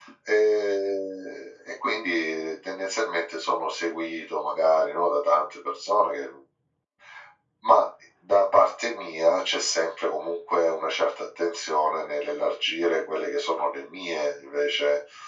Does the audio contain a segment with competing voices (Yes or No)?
No